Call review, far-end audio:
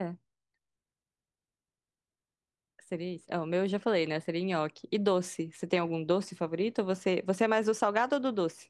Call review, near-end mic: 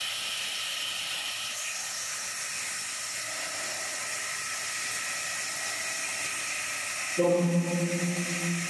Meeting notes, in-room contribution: present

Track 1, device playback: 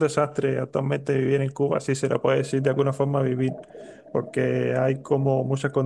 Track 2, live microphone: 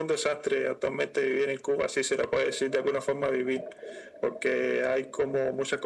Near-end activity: none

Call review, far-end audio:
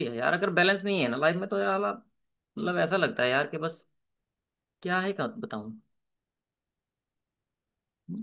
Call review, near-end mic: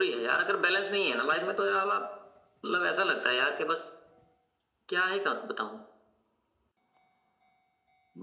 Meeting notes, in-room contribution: none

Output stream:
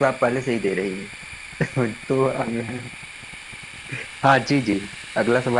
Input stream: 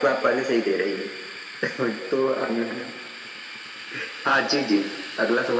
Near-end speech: none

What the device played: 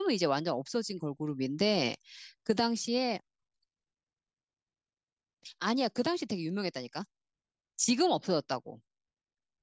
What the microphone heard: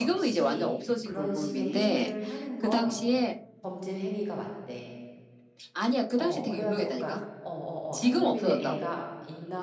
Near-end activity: present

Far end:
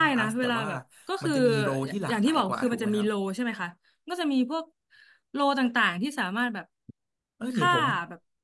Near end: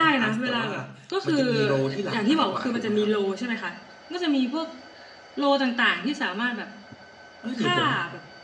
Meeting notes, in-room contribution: none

